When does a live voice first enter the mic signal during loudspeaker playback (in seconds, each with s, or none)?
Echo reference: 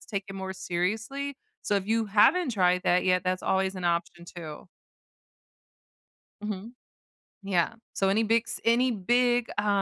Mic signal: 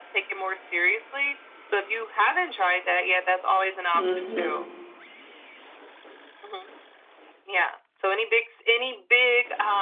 3.9 s